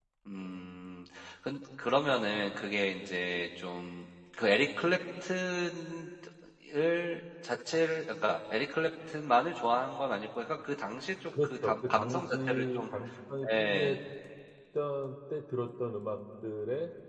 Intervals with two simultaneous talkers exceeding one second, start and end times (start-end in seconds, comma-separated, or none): 11.4-12.9